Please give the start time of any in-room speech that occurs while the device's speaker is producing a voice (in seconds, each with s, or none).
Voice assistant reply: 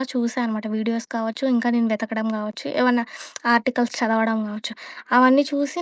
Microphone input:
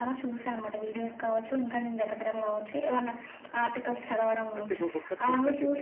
4.6 s